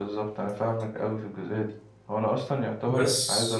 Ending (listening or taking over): listening